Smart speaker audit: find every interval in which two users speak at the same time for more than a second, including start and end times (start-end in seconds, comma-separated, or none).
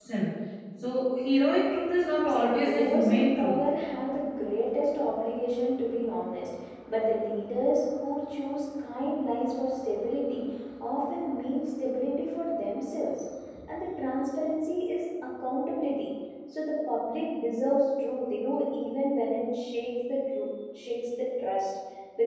2.3-3.6